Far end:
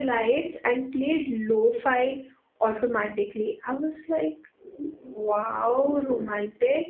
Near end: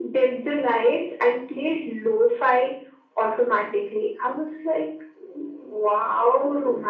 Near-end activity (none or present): none